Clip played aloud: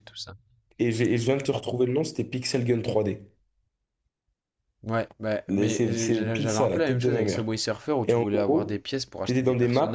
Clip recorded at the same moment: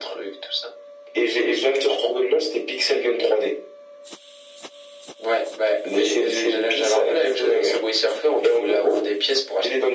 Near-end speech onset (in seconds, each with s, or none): none